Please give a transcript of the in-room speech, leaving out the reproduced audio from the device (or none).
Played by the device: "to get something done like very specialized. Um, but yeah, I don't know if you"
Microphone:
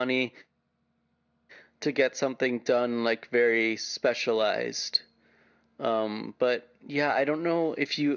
none